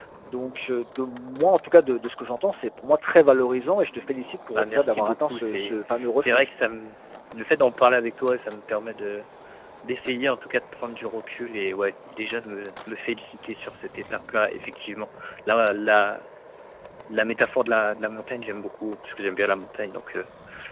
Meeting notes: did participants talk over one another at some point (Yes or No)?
Yes